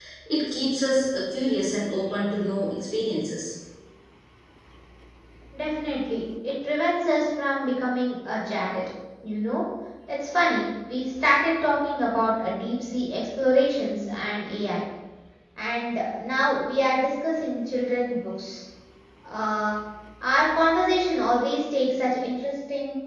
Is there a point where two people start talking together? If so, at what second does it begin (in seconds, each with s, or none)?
none